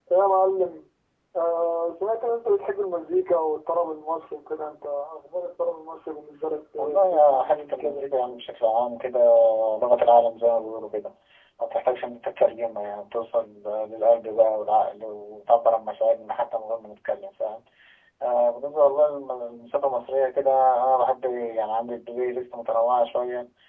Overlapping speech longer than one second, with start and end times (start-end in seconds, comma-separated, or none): 6.8-8.0